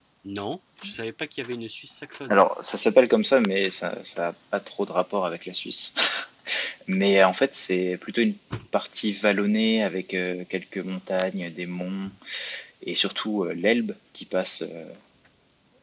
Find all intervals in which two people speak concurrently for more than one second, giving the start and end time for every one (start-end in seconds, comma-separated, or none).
none